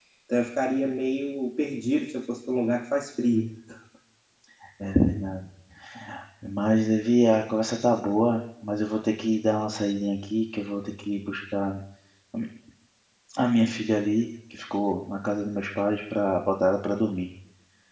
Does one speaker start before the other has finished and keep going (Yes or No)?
No